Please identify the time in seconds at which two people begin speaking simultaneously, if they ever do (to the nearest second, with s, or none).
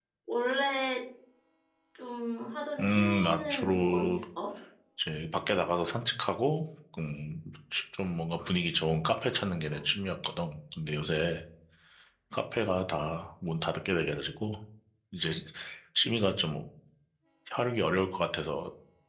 3 s